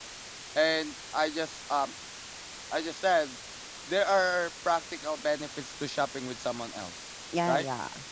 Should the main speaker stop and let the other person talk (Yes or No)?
Yes